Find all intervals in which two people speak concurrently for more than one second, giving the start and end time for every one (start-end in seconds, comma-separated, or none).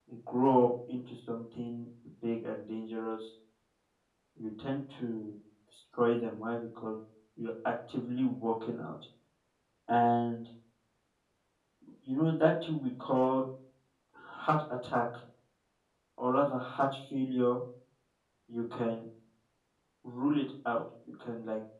none